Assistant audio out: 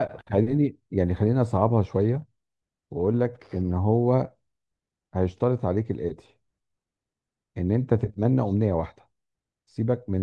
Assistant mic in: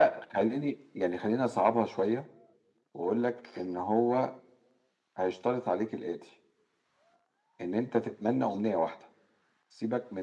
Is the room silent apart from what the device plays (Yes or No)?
Yes